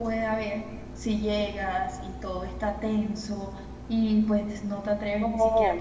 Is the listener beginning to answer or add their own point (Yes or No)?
Yes